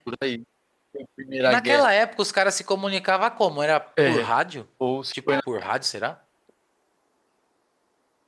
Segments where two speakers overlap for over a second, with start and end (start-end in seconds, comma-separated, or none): none